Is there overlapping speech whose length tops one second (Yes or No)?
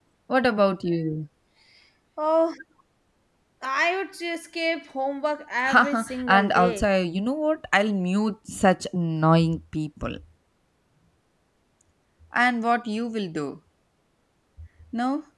Yes